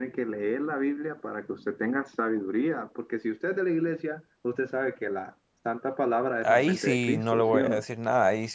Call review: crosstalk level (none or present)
present